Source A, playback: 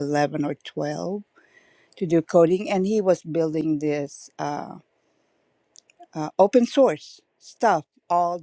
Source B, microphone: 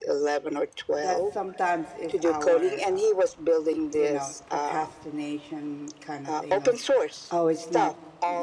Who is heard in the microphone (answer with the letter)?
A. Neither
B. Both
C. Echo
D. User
B